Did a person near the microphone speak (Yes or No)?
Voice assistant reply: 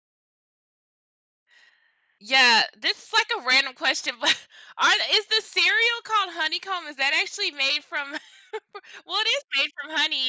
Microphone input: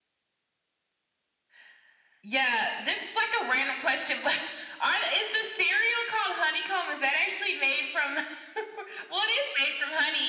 No